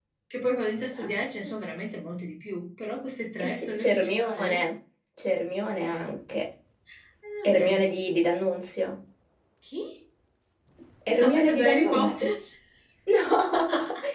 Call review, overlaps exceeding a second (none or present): present